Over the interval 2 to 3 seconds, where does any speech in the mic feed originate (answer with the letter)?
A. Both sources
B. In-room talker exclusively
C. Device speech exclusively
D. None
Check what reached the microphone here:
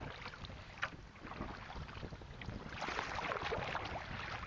D